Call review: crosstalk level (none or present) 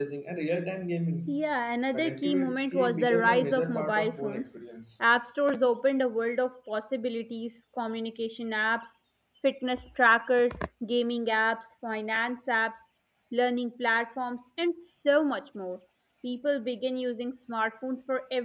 present